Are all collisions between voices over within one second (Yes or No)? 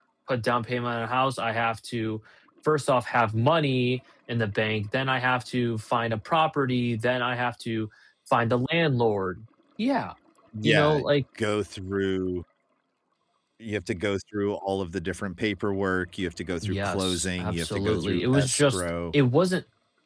No